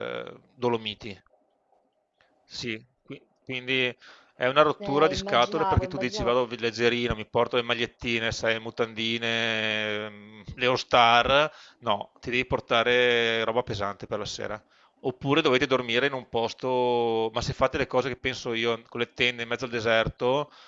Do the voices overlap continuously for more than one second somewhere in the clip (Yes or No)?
Yes